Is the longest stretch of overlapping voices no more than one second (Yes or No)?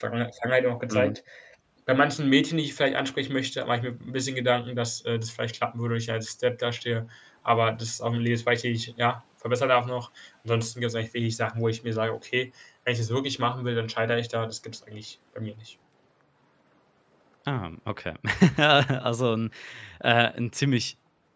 Yes